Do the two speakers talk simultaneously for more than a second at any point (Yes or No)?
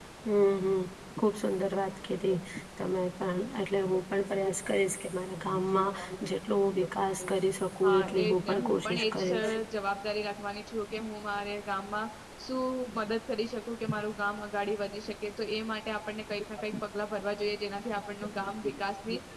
Yes